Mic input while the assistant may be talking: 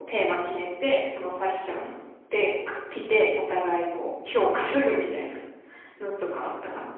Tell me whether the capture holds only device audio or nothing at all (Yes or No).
Yes